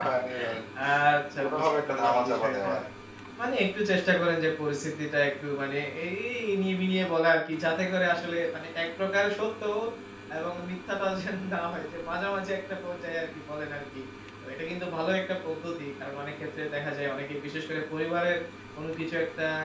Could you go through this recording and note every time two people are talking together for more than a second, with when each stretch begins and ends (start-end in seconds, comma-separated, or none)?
1.4-2.7